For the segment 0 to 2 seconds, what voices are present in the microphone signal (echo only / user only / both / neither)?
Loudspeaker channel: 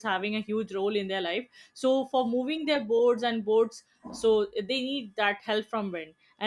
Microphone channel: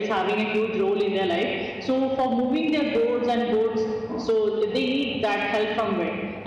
echo only